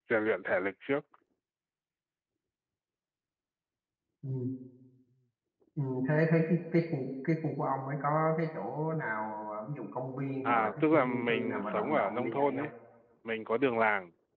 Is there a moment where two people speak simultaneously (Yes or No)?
Yes